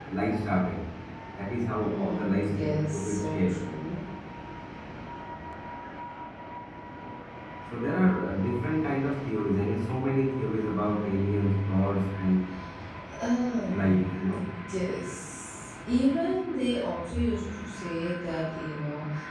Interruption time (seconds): 1.8 s

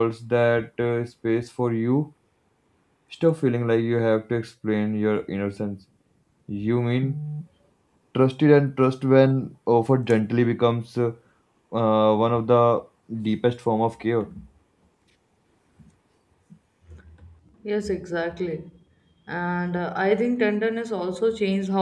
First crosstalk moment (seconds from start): none

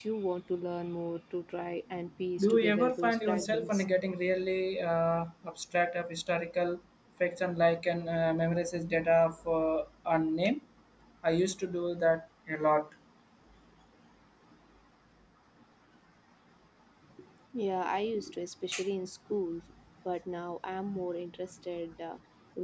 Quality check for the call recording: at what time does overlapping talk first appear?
2.4 s

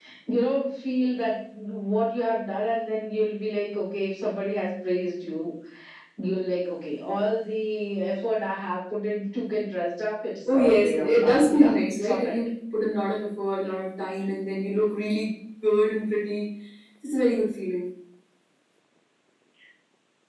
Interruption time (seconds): 10.4 s

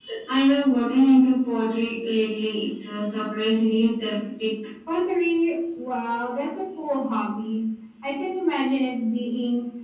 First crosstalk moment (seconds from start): none

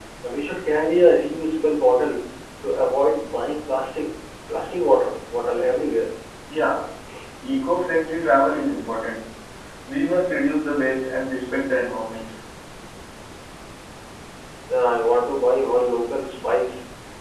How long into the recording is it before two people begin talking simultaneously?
none

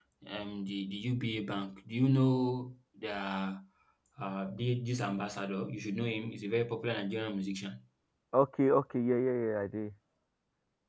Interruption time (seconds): none

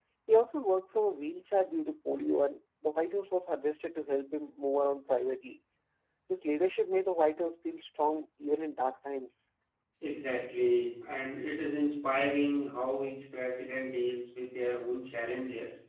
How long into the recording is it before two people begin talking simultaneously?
none

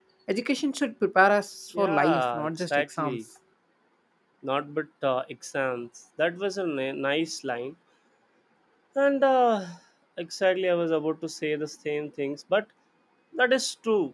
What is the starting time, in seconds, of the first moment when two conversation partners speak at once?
1.7 s

